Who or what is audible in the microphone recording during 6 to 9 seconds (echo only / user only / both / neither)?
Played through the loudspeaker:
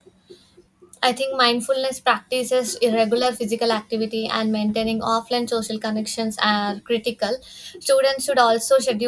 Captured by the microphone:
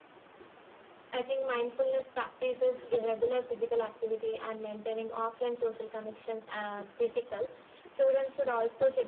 echo only